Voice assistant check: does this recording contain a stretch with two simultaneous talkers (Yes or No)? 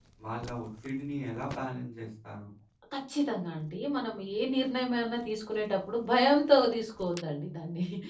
No